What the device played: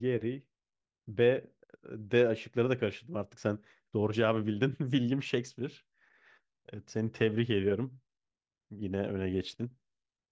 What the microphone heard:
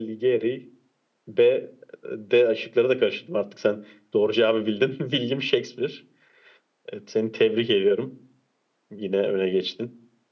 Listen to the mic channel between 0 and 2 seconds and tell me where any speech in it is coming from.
echo only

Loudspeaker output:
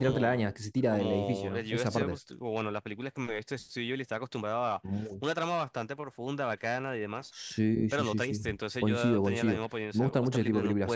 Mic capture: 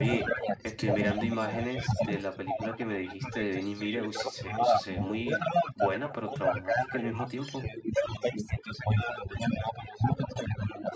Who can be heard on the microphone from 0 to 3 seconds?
both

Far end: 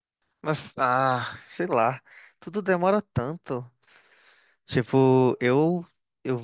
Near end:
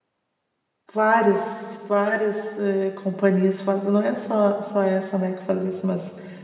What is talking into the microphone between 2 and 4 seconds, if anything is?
user only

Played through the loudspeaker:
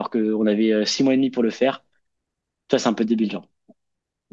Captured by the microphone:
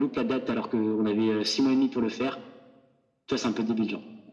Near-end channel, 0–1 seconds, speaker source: echo only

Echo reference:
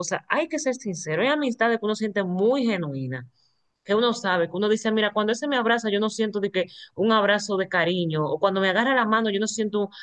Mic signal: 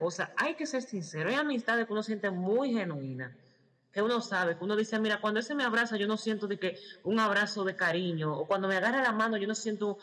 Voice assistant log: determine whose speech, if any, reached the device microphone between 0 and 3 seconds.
echo only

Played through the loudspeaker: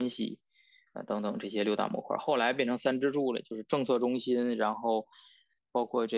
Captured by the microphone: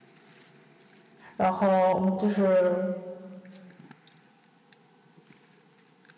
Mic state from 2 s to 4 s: user only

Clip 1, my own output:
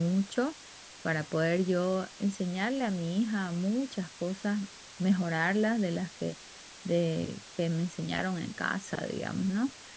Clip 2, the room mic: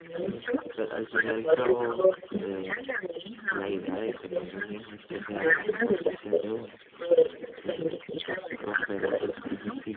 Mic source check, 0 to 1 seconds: both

